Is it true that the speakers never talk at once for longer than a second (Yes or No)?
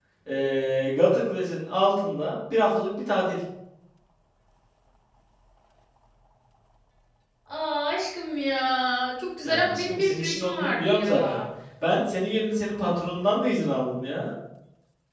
No